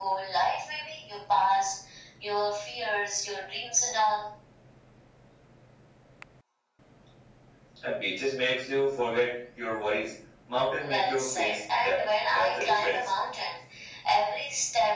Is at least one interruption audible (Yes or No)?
Yes